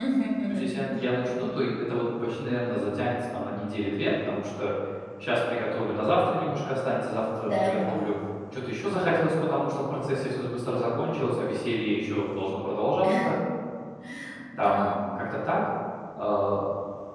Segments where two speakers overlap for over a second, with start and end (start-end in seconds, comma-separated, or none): none